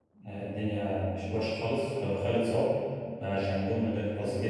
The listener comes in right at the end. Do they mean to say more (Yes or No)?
No